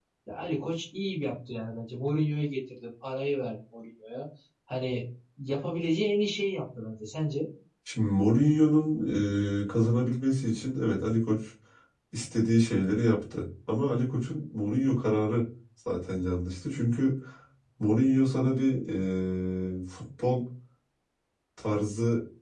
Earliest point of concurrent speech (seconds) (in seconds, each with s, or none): none